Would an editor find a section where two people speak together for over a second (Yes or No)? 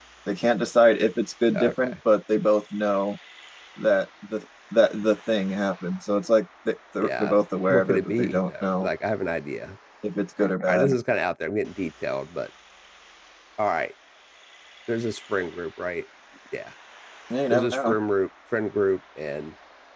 Yes